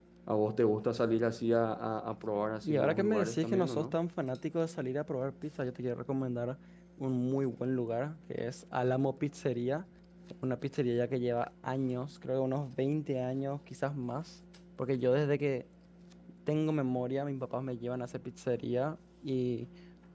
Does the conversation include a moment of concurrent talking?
Yes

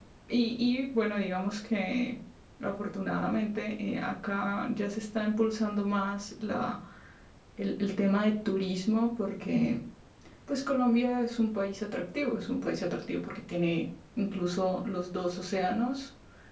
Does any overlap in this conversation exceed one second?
No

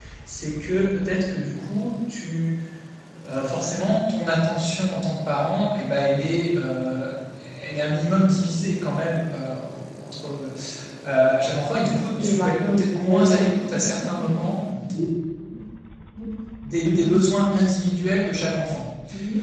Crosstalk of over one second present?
Yes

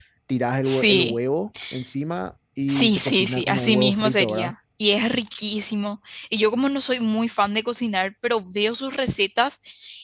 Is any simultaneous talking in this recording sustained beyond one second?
Yes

